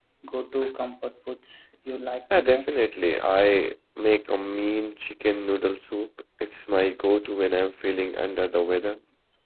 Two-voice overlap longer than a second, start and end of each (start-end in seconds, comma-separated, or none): none